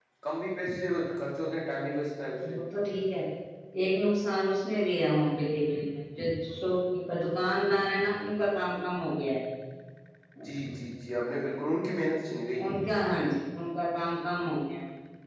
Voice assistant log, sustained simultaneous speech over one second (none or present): none